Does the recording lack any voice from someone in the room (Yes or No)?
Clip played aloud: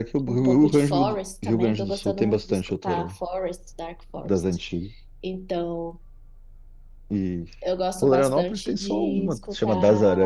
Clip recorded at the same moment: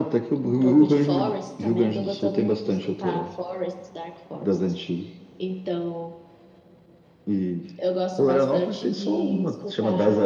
Yes